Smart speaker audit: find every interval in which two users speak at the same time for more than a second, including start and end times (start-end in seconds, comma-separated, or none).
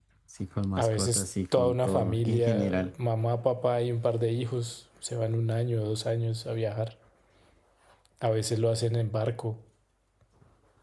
0.8-2.9